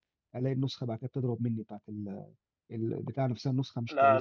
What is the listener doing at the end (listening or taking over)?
taking over